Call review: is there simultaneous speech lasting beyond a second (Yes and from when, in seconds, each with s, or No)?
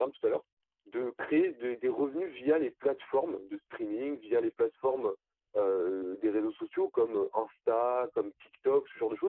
No